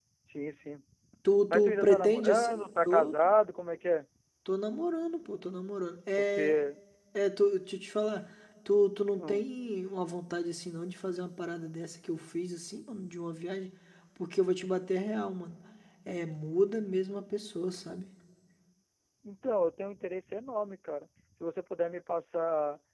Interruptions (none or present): present